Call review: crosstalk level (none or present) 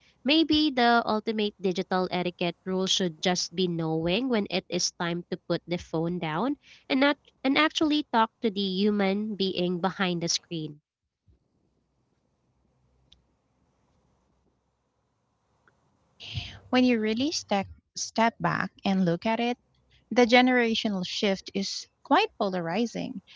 none